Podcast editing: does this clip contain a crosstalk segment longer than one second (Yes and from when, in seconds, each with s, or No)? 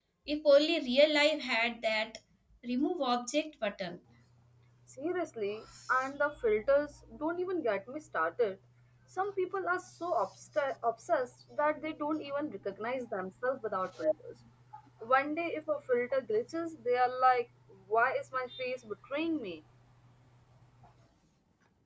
No